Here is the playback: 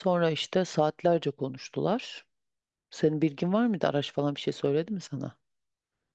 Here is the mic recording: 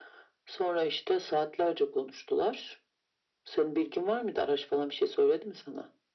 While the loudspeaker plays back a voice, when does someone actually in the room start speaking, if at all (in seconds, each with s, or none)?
none